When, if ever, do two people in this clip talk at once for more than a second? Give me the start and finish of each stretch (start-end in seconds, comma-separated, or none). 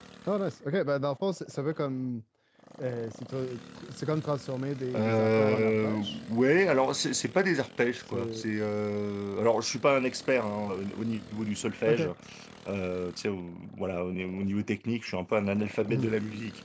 4.9-6.2